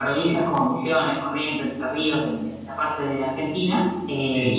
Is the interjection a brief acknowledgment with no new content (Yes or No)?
Yes